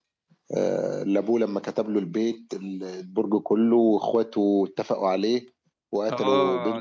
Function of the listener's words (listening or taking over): taking over